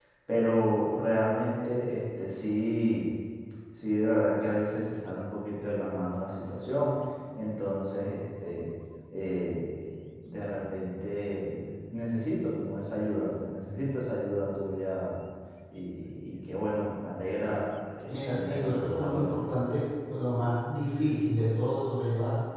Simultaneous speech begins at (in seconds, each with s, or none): 18.1 s